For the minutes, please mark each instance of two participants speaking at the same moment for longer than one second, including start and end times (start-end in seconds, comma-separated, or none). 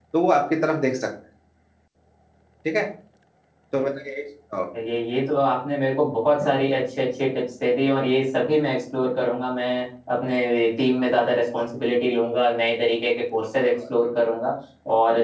none